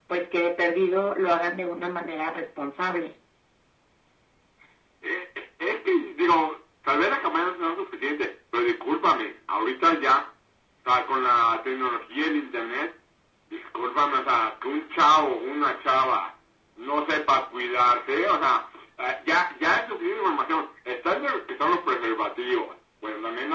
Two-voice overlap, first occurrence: none

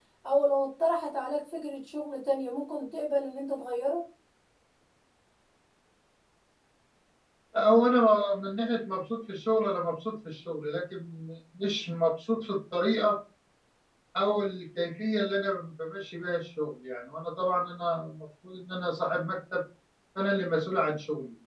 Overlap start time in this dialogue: none

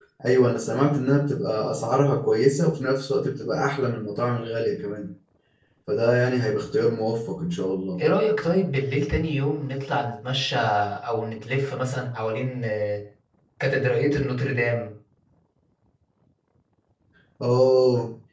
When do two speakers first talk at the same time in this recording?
none

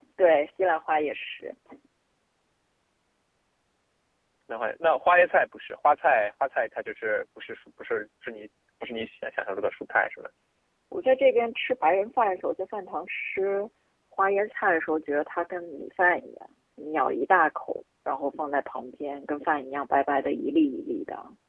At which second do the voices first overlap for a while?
none

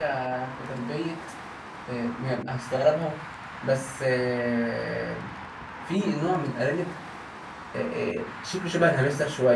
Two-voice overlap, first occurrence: none

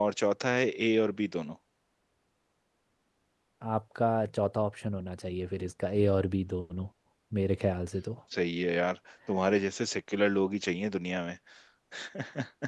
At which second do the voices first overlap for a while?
none

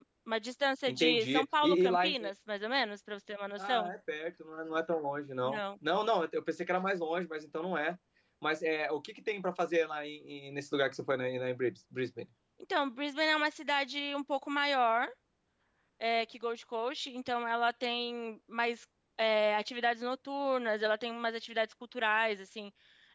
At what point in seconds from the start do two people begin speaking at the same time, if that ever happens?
0.9 s

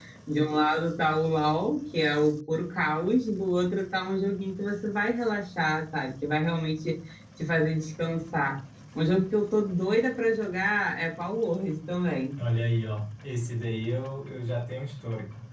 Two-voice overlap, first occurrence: none

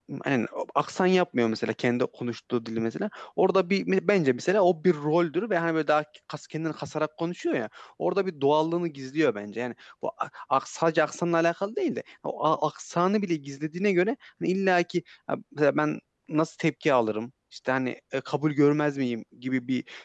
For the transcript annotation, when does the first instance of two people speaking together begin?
none

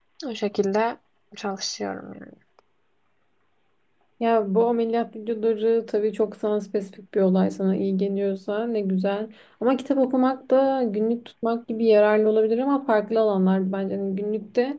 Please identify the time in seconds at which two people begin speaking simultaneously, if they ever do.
none

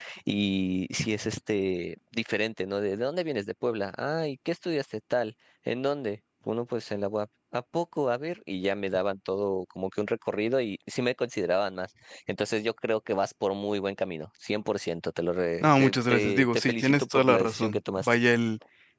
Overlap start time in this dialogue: 15.6 s

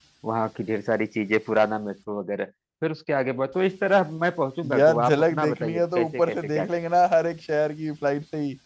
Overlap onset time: 4.6 s

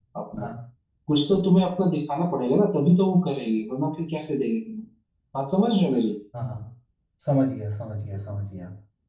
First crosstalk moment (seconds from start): none

